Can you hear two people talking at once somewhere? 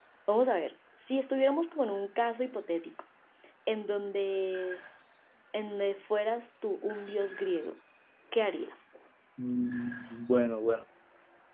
No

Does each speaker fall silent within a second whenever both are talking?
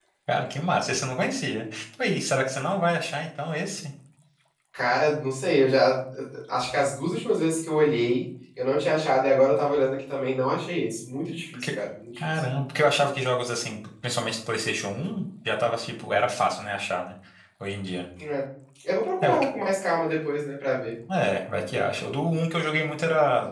Yes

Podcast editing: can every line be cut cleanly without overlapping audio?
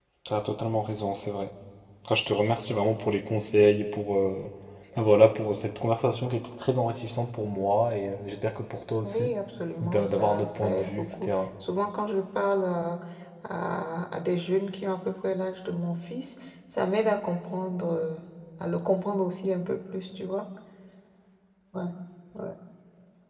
No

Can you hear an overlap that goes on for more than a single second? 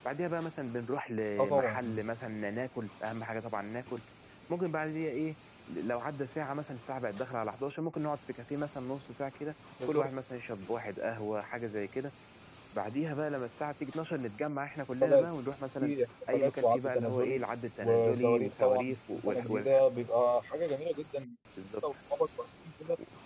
Yes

